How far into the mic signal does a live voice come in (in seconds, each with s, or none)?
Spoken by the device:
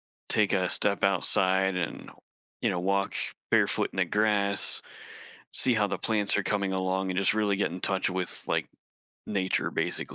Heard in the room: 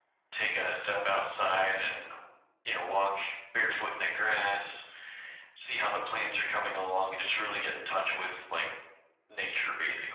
none